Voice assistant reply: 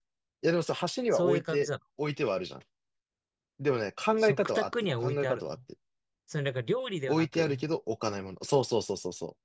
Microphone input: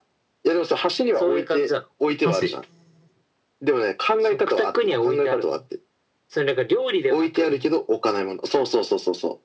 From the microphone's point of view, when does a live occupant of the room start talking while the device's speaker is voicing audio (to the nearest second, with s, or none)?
2 s